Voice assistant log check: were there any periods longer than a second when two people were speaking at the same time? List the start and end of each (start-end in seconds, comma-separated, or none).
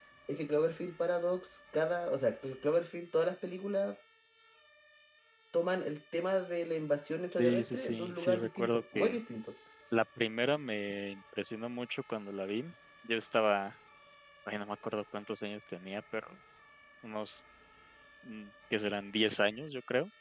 7.3-9.2